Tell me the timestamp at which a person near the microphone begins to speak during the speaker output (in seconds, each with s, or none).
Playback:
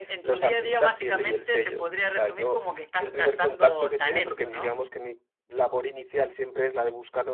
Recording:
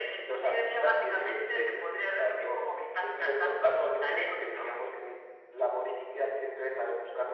none